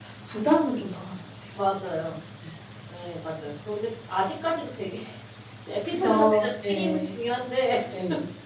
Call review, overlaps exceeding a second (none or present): present